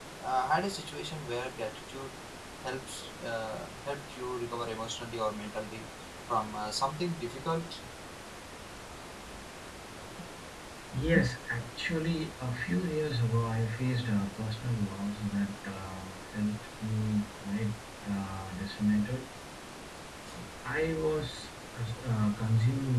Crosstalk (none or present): none